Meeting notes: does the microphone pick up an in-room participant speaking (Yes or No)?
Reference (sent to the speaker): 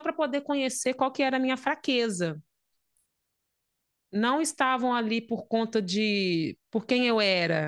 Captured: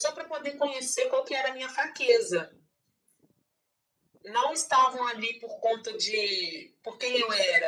No